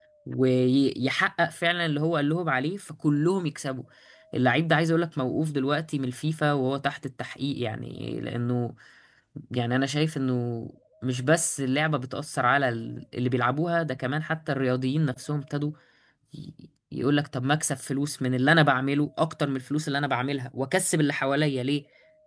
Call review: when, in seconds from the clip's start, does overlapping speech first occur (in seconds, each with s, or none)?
none